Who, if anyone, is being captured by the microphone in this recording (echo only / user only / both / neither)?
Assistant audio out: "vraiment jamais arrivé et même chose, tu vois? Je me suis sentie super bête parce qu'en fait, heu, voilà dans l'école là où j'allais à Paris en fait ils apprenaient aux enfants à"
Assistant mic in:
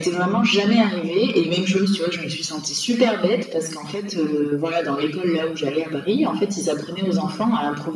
echo only